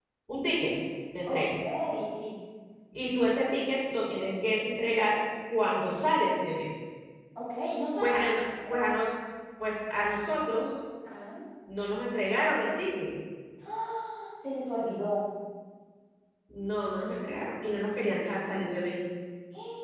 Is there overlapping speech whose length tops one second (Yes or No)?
No